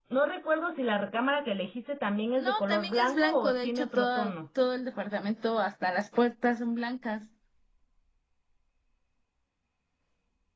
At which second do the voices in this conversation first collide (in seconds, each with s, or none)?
2.4 s